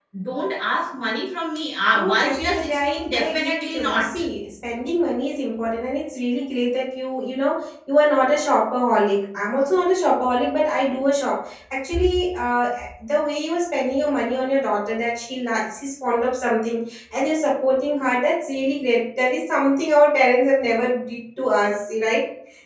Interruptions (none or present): present